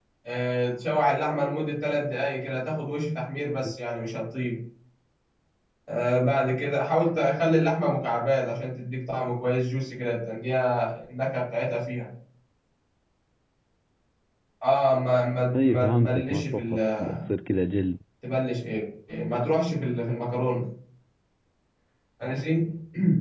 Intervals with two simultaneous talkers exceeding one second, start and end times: 15.6-16.8

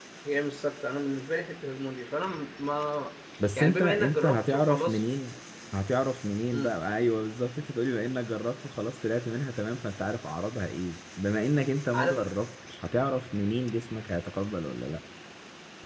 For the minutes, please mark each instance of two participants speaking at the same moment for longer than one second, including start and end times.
3.6-5.0

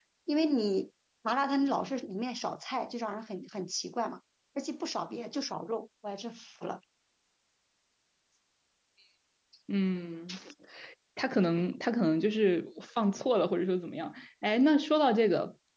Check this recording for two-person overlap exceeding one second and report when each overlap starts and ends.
none

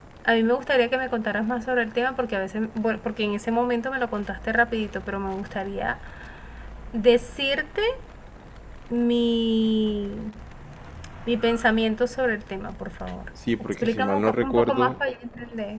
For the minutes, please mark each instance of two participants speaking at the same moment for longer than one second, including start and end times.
13.4-15.0

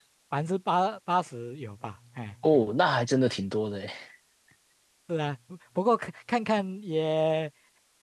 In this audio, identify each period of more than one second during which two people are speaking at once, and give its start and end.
none

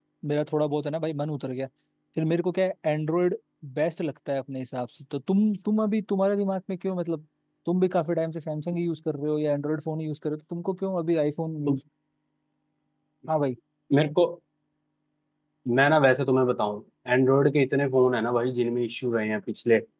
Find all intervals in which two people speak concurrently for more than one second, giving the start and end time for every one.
none

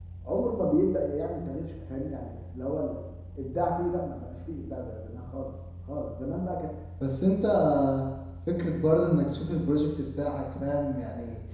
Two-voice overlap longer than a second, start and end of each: none

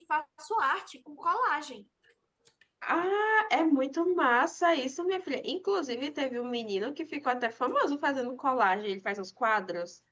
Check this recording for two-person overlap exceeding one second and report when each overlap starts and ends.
none

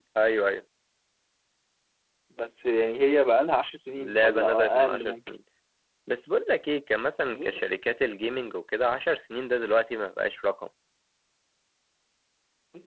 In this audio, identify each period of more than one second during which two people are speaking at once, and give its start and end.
4.0-5.3

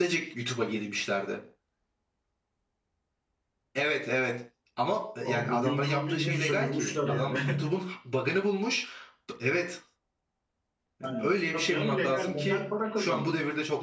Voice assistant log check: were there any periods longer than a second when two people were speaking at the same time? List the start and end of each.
5.2-7.6, 11.0-12.6

